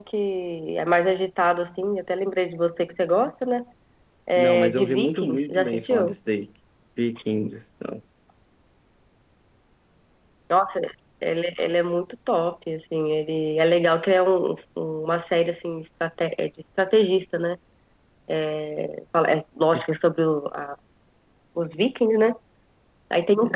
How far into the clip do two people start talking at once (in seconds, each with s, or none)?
4.4 s